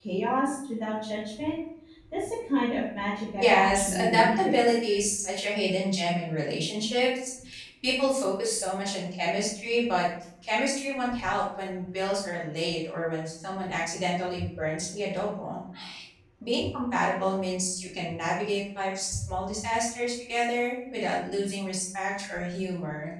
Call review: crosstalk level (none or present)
present